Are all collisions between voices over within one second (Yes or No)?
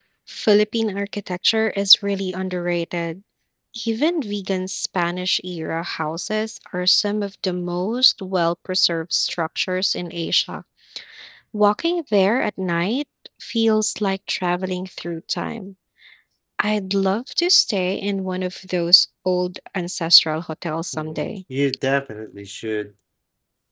Yes